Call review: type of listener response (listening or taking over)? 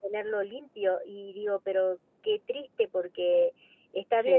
listening